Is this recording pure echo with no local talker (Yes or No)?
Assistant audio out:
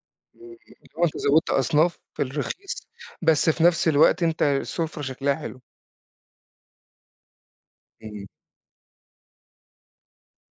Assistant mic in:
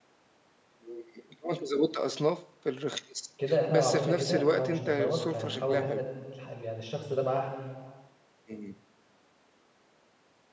No